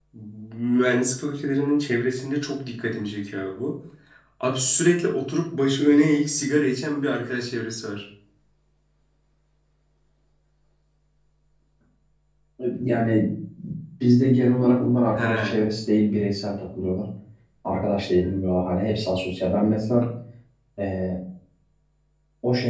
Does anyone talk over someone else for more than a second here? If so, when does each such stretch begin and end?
none

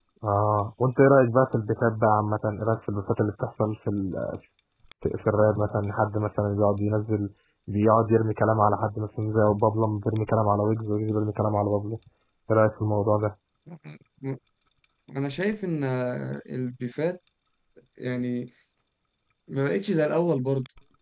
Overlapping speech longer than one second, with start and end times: none

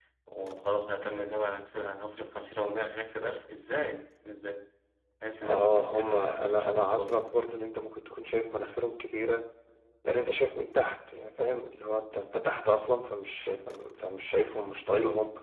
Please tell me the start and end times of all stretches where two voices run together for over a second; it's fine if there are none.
5.4-7.5

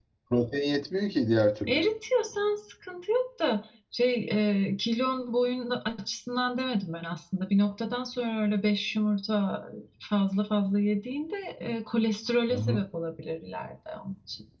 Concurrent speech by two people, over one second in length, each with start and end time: none

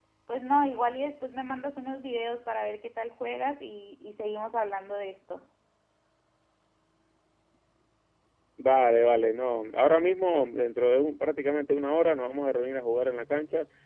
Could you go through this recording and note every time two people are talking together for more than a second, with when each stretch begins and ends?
none

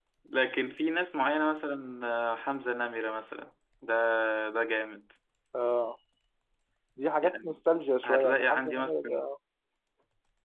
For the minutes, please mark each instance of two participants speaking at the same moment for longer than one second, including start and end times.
8.1-9.3

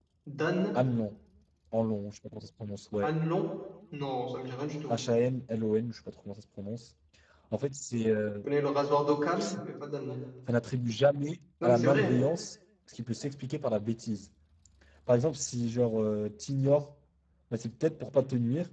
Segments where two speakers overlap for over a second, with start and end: none

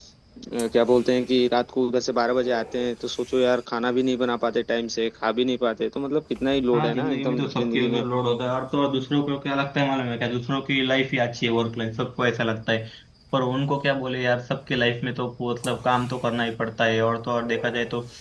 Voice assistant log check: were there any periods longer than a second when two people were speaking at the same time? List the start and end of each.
6.7-8.0

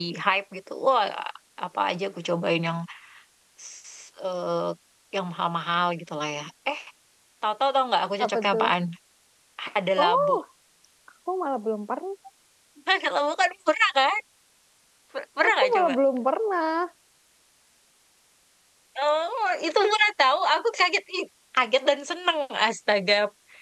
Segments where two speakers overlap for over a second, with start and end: none

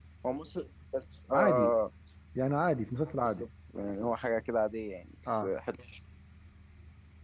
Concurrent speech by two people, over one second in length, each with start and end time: none

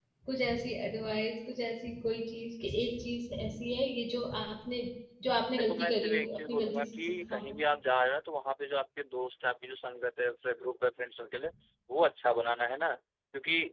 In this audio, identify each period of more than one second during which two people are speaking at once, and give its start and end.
5.5-7.6

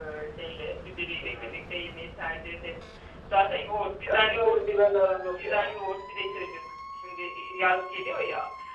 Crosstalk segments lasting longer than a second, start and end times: none

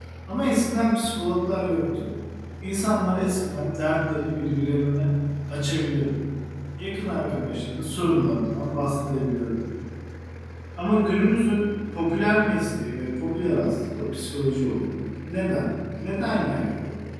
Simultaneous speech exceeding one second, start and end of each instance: none

